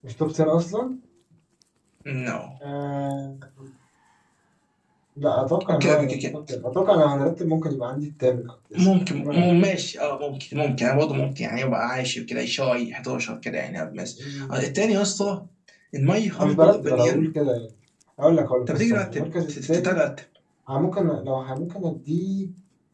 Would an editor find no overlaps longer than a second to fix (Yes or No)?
No